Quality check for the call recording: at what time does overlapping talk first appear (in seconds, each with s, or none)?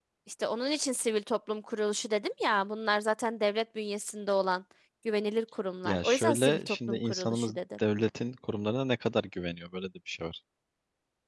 5.8 s